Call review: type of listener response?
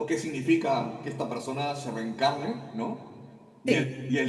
listening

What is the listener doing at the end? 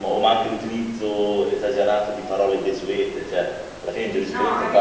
listening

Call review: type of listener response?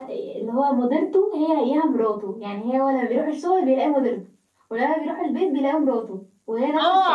taking over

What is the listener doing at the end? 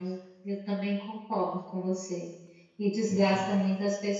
listening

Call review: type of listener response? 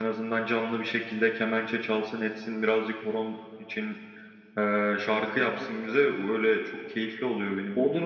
taking over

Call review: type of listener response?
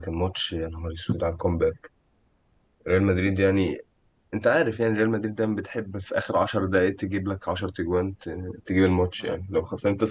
listening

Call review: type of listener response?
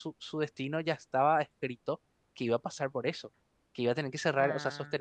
listening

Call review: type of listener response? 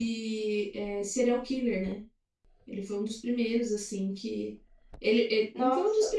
listening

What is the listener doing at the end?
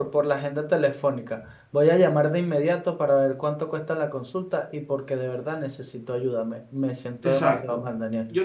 taking over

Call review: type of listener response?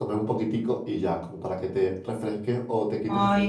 listening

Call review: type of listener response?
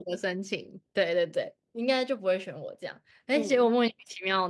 listening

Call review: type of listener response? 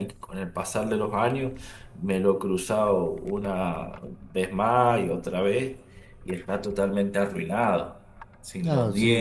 taking over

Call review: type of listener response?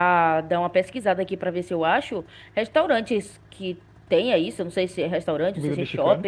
listening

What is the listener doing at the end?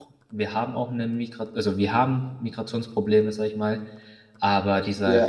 listening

